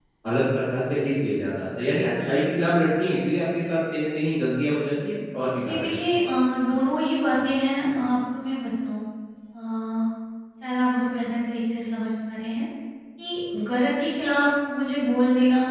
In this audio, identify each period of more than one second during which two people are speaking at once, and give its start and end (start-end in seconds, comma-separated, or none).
none